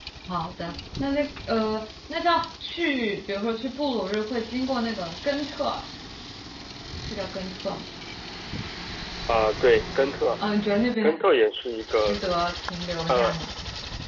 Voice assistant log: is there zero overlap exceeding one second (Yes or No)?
Yes